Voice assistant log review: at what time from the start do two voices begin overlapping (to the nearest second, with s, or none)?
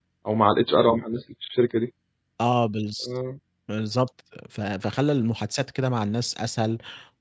none